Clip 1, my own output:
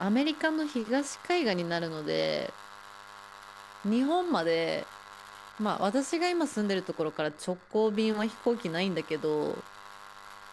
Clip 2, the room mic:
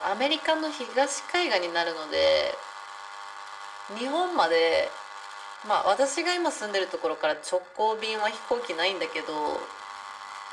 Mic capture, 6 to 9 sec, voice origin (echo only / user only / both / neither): echo only